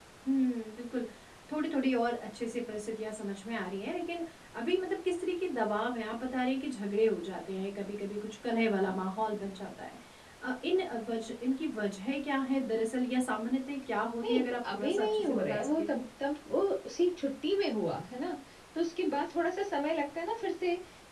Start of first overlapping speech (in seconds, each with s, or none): 14.2 s